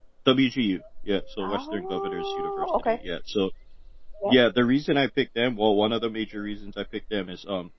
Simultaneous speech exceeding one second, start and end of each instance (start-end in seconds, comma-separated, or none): 1.4-3.0